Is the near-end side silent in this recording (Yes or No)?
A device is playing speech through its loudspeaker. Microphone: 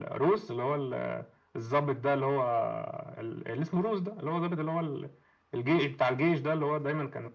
Yes